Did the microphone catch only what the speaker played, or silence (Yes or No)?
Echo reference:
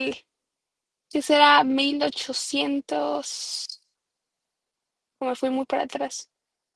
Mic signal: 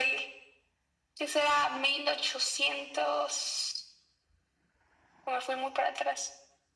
Yes